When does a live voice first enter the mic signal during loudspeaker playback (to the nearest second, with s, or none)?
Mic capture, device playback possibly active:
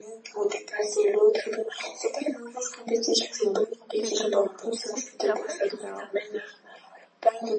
4 s